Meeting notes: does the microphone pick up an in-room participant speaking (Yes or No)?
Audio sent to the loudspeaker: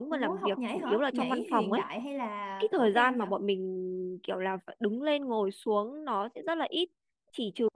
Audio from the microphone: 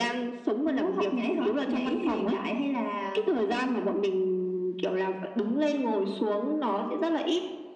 No